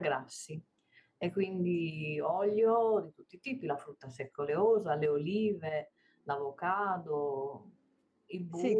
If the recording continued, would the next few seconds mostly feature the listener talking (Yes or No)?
Yes